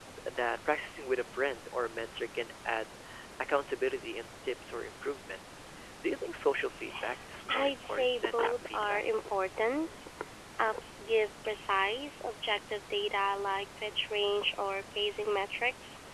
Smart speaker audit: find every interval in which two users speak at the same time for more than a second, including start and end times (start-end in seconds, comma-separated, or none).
7.5-9.0